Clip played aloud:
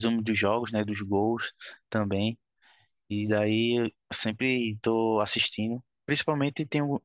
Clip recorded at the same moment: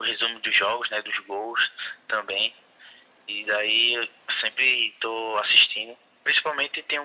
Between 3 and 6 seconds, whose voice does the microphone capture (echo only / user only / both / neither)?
echo only